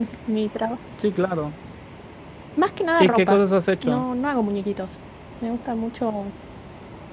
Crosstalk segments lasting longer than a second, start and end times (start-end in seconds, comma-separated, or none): none